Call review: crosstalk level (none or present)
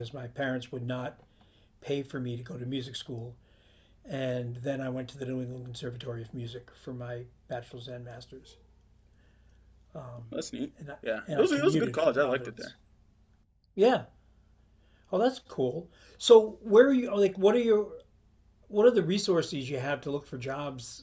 present